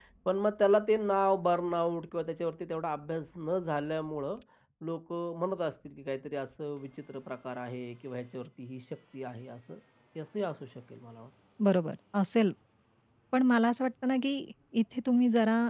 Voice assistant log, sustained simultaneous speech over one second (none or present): none